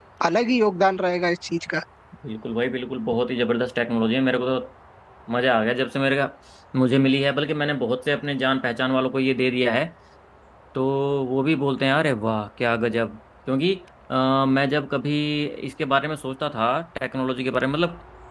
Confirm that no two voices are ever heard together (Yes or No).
Yes